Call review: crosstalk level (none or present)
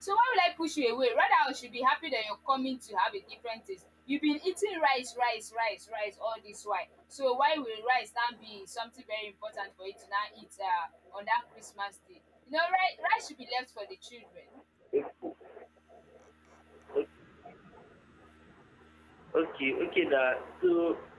none